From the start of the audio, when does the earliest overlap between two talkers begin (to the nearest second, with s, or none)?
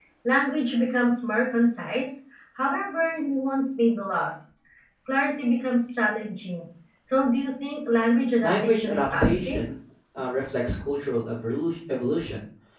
8 s